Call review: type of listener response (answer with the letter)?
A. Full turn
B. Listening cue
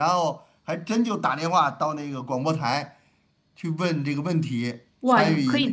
A